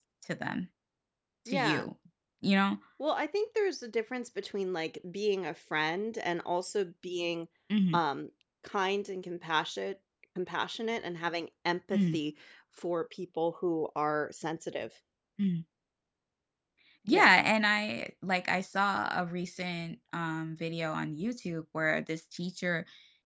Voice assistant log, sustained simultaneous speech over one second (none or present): none